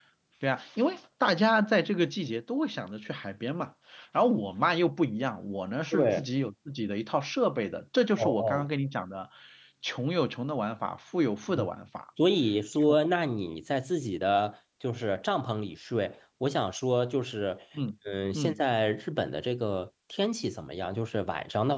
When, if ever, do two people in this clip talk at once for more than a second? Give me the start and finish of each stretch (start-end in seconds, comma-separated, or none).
none